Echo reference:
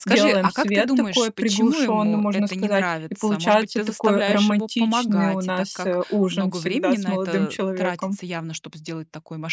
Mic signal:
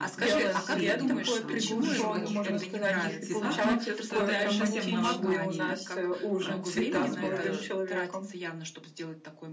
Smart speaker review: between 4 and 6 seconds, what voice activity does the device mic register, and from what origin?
both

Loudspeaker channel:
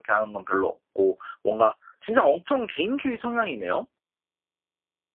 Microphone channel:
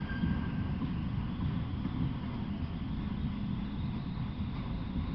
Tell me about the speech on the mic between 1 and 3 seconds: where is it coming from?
neither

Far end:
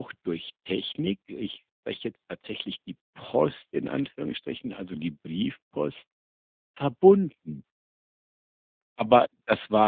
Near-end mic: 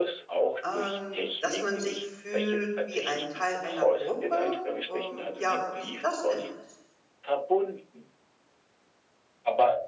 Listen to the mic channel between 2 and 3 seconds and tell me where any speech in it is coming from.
both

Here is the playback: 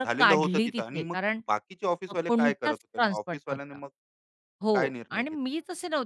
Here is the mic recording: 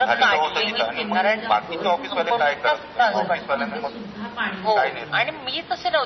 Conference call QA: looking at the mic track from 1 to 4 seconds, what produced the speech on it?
both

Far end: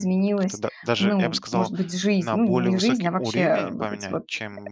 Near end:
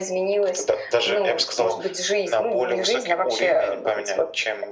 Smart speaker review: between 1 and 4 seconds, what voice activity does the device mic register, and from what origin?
echo only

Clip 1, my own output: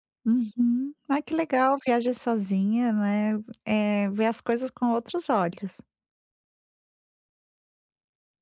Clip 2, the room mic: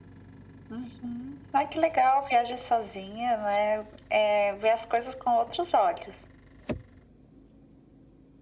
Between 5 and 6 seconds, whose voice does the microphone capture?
echo only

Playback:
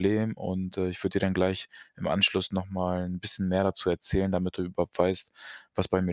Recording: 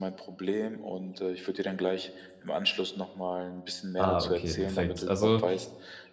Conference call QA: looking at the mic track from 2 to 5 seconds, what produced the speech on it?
both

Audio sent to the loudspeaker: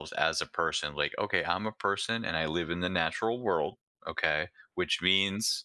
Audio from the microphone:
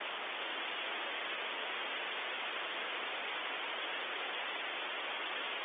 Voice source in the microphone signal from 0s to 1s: neither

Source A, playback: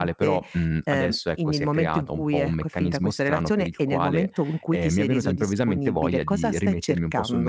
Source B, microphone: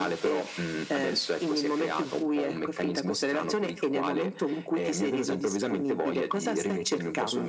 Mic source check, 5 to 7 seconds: echo only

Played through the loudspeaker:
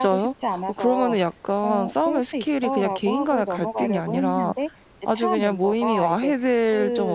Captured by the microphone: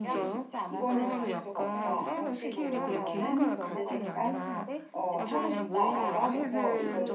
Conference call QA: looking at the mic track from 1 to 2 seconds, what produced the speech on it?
both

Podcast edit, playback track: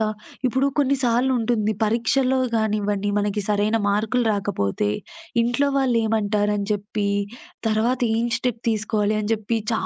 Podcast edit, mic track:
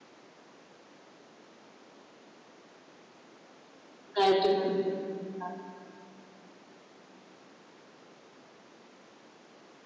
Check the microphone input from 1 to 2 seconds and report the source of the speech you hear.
neither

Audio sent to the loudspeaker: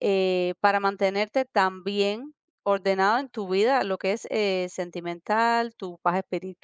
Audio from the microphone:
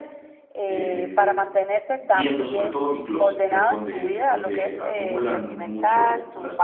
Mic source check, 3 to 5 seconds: both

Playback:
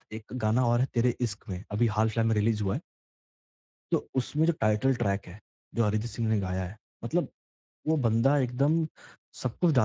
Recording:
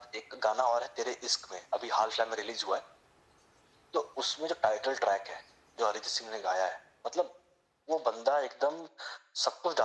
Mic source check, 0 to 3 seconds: echo only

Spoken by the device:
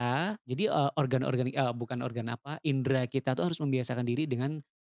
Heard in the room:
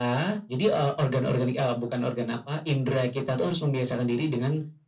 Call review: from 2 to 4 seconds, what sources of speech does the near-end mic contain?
echo only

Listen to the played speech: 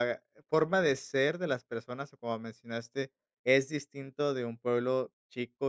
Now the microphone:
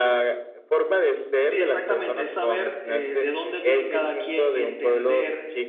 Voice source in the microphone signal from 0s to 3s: both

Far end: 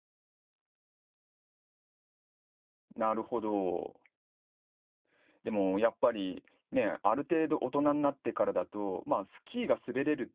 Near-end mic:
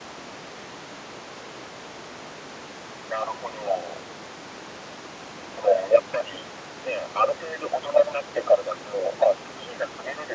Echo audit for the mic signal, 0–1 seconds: neither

